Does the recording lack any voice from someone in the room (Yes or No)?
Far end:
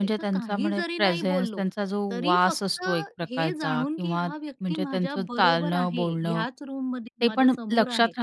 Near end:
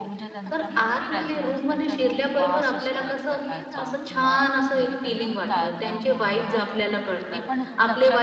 No